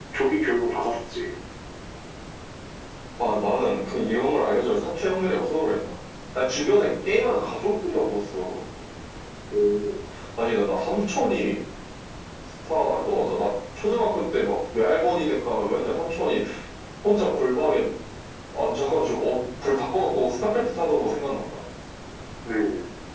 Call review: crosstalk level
none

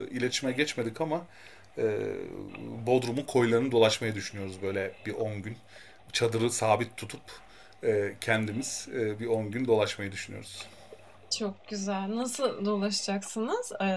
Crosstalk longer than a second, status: none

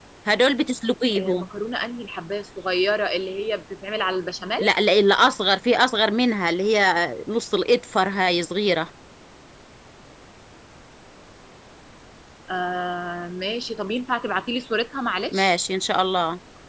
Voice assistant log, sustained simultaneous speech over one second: none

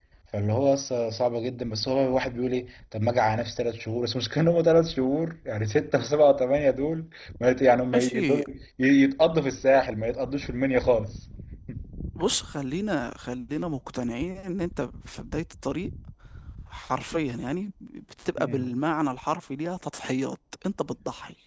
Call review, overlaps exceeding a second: none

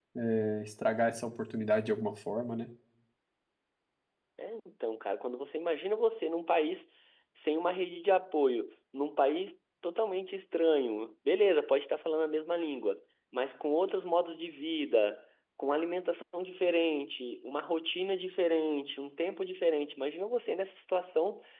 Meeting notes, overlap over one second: none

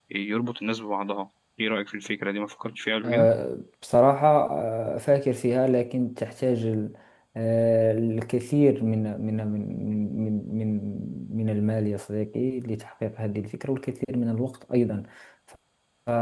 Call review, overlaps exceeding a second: none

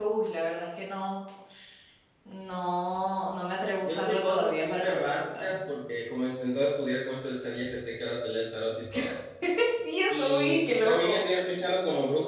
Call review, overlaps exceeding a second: present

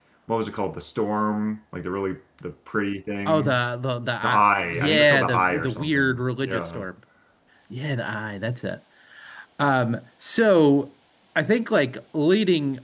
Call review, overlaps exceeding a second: present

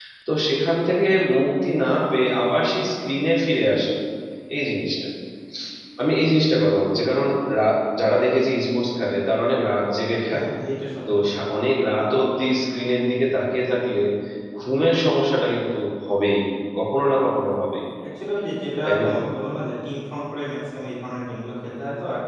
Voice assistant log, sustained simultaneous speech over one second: none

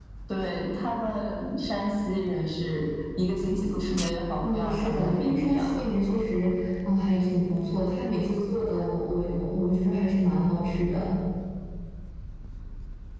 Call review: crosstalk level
present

